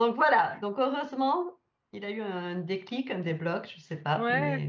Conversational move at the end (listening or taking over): taking over